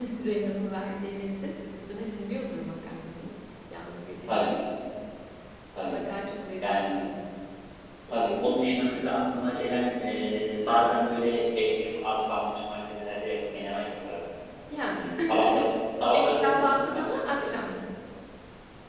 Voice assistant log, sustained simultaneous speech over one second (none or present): present